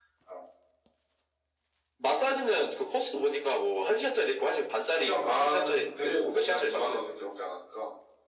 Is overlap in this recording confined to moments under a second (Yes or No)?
No